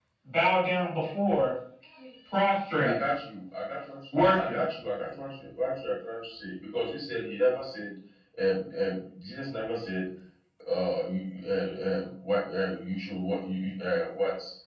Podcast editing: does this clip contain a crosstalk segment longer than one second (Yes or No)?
No